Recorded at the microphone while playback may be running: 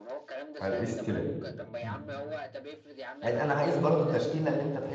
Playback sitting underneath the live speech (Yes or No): Yes